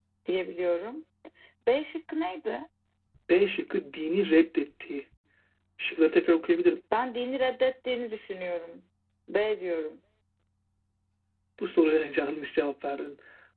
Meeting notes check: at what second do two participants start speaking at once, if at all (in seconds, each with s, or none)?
none